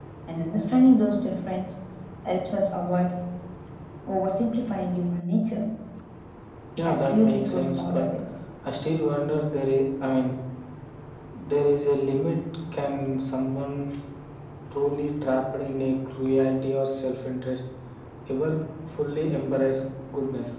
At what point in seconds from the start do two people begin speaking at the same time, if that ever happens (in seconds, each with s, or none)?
6.8 s